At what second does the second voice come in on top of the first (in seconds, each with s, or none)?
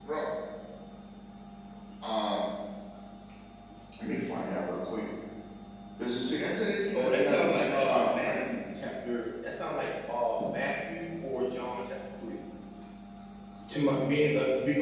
6.9 s